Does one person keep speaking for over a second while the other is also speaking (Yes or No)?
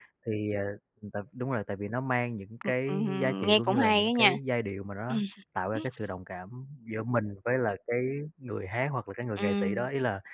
Yes